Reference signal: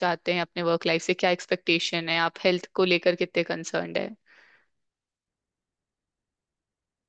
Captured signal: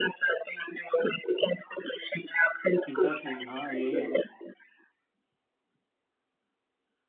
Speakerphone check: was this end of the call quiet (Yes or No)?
No